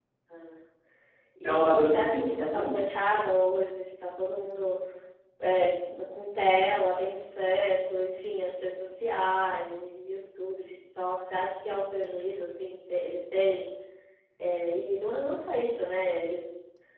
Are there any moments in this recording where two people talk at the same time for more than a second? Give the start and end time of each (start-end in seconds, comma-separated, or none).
1.4-2.9